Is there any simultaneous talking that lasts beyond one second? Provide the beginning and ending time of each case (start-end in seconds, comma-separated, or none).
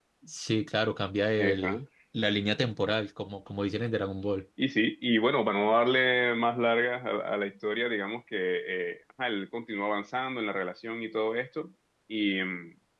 none